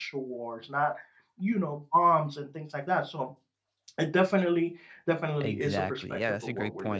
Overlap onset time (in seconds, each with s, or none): 5.4 s